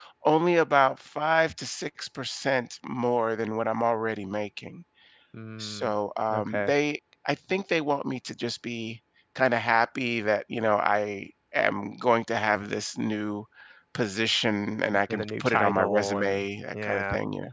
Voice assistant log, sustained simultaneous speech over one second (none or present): present